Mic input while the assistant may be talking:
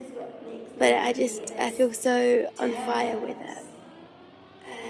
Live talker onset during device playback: 0.8 s

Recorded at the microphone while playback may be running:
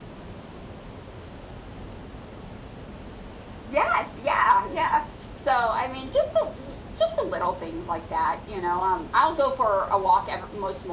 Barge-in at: 3.7 s

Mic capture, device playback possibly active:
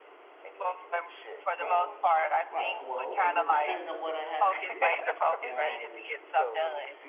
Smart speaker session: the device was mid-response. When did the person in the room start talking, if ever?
1.6 s

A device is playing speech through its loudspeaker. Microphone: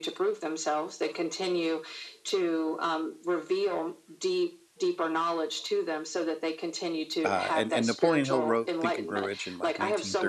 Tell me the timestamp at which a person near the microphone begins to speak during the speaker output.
7.2 s

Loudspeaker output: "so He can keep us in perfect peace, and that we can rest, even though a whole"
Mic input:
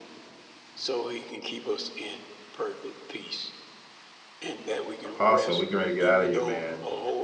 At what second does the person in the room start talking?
5.0 s

